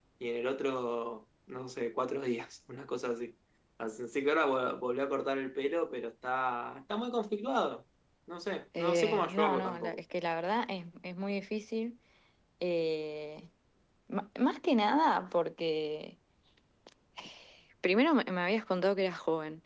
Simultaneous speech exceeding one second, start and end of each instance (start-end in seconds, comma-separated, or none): 8.8-10.0